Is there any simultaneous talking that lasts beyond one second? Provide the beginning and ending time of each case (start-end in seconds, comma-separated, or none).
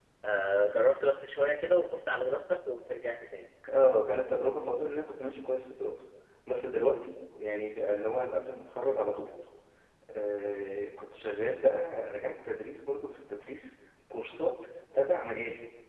none